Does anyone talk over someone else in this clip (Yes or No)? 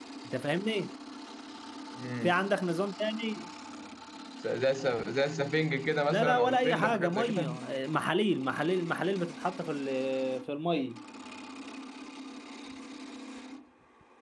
Yes